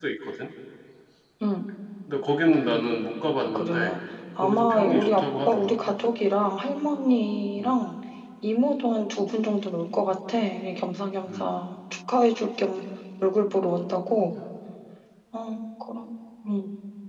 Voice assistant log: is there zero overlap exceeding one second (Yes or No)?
No